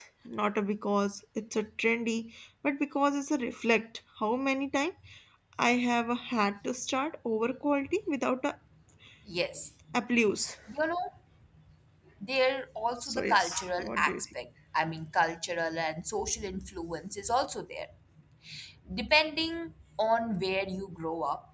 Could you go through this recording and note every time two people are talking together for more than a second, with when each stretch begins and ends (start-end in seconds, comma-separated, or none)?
13.0-14.2